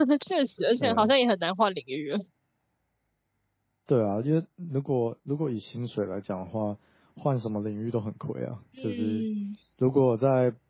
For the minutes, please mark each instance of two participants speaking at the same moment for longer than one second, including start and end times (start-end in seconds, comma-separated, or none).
none